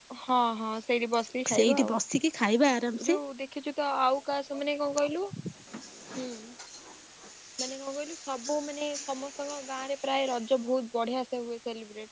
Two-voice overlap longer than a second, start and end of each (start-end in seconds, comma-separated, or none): none